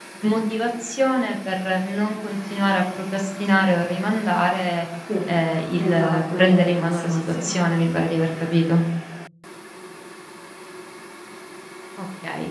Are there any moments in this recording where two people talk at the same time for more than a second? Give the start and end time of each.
5.8-7.4

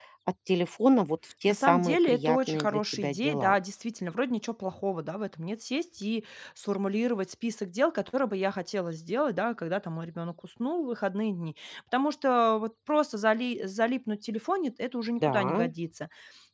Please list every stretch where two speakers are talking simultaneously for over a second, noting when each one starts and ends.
1.5-3.5

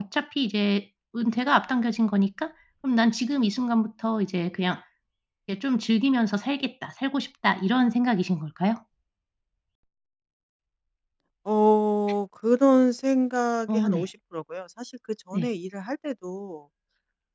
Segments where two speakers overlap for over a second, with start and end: none

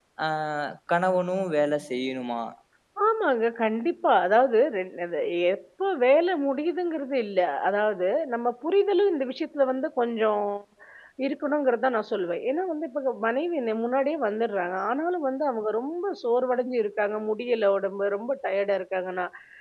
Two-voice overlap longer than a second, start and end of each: none

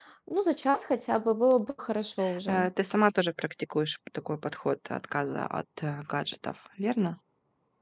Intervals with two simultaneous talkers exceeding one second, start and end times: none

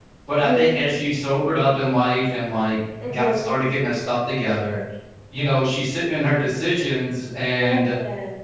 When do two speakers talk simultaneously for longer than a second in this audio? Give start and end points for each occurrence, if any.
none

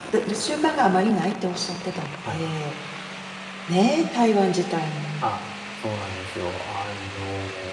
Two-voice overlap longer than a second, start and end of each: none

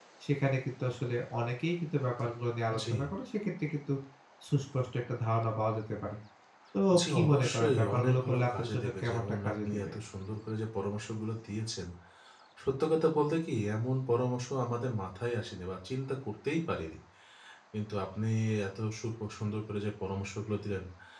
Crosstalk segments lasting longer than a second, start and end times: 7.1-9.9

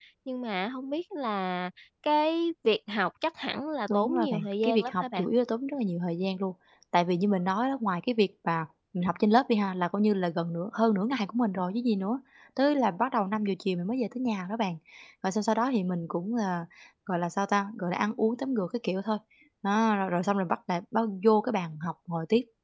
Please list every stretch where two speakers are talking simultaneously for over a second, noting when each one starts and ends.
3.9-5.2

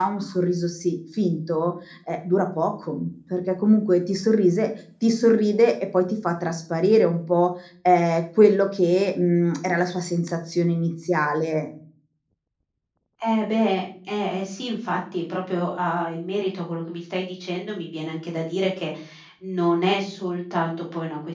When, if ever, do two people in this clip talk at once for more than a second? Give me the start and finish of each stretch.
none

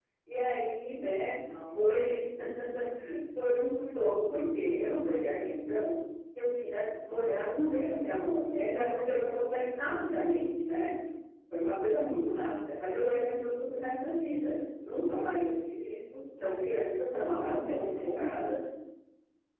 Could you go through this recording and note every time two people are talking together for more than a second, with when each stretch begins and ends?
17.1-18.3

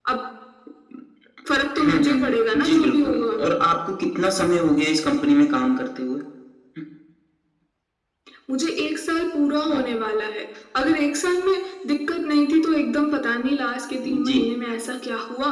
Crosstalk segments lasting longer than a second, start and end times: 1.9-3.5

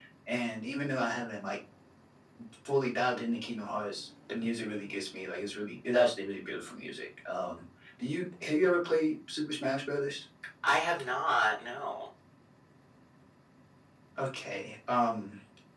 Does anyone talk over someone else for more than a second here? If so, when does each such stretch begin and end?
none

